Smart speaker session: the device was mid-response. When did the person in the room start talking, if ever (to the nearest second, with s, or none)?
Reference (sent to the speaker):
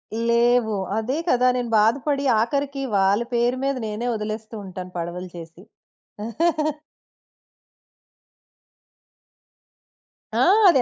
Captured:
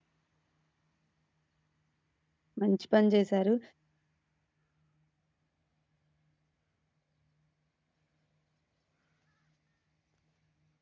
3 s